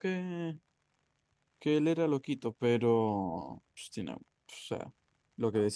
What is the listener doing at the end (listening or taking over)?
listening